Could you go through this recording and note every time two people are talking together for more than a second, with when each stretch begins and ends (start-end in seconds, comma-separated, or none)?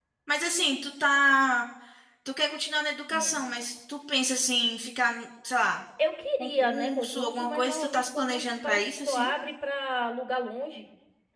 6.4-9.3